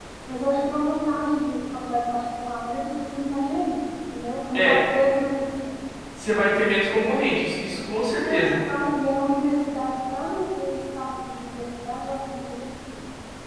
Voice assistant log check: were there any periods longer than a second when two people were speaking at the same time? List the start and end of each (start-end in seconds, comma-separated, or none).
none